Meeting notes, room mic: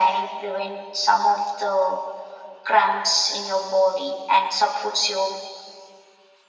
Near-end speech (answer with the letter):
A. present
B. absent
B